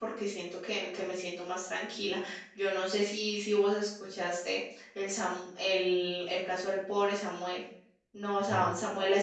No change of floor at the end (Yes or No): Yes